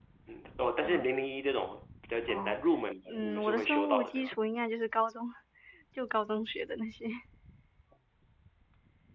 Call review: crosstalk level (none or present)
present